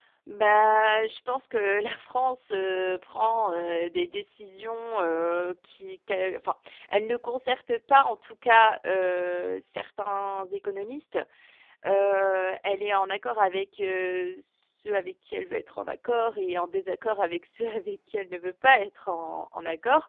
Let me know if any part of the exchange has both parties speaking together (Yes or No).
No